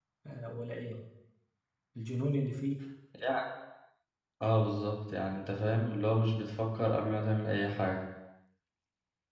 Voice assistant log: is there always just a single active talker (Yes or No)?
Yes